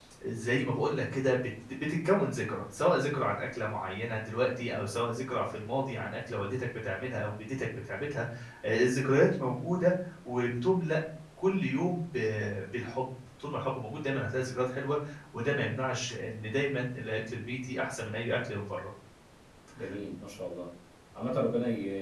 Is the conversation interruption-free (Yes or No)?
Yes